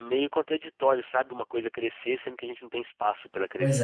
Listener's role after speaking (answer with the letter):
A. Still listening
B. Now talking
B